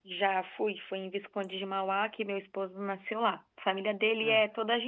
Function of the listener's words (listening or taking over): listening